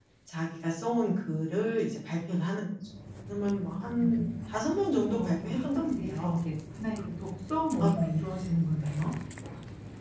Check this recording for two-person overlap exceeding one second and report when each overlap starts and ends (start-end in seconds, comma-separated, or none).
5.1-6.3